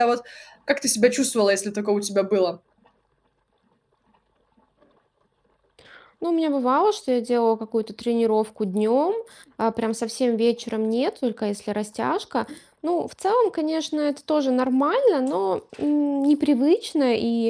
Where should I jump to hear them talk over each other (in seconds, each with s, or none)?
none